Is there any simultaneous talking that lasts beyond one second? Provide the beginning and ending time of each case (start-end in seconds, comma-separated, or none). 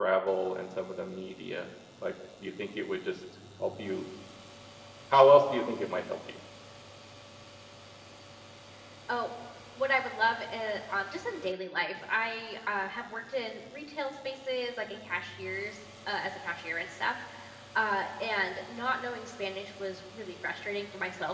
none